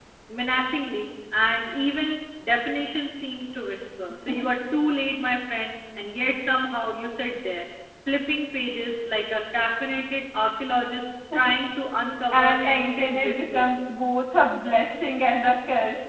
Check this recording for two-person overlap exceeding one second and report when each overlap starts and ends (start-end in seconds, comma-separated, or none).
12.3-13.7